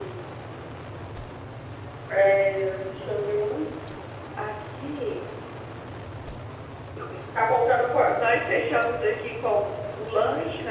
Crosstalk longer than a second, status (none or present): none